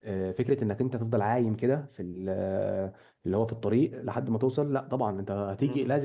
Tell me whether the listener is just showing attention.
Yes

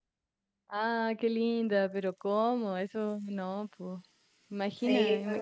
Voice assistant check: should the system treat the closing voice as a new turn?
Yes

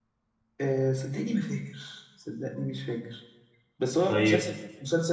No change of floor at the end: Yes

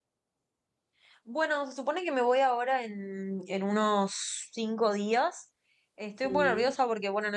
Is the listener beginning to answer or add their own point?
No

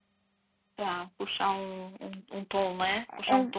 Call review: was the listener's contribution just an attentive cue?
Yes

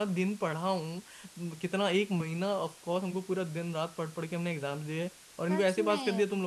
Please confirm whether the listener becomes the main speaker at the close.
Yes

